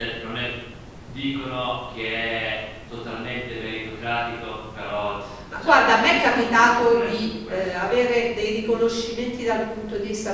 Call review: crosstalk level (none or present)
present